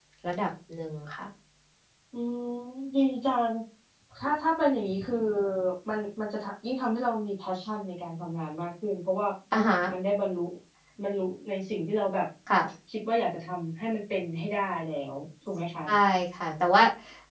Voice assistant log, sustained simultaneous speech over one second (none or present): none